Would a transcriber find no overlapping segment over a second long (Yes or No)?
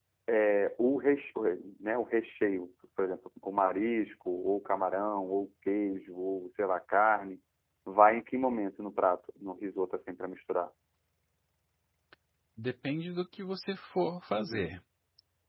Yes